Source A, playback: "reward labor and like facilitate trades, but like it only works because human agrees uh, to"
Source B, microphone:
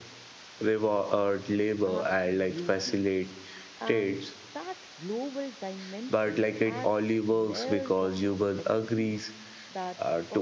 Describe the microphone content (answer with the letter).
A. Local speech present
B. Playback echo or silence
A